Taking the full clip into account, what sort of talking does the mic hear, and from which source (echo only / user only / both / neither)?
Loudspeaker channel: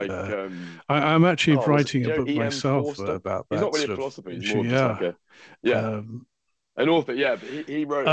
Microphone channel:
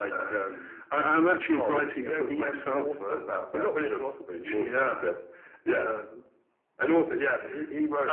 echo only